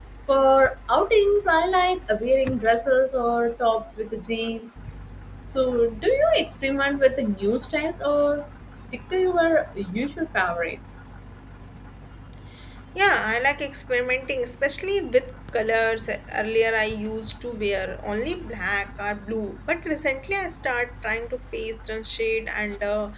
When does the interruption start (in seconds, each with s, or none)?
none